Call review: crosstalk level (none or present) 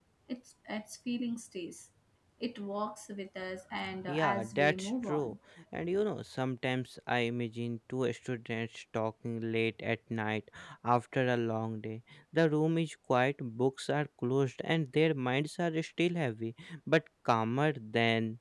present